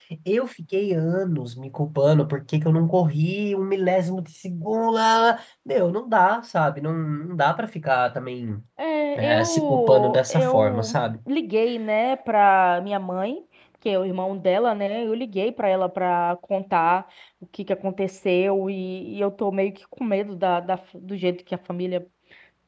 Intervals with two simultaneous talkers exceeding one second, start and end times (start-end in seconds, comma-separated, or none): 9.2-11.0